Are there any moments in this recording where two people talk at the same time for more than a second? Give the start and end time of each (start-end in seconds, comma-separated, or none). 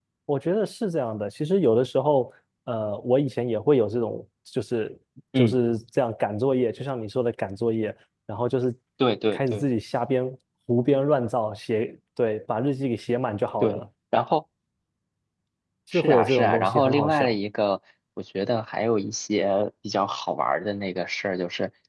15.9-17.3